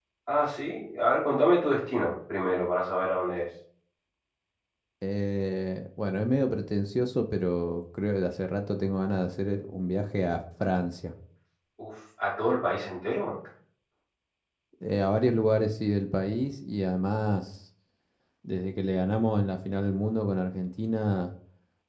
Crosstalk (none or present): none